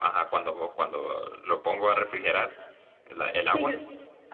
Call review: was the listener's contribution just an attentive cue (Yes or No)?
No